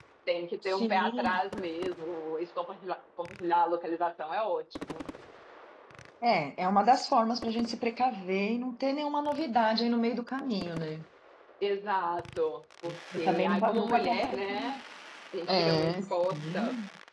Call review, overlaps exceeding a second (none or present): present